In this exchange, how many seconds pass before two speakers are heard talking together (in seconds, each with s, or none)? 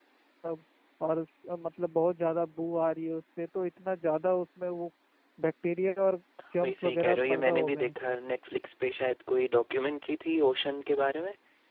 6.6 s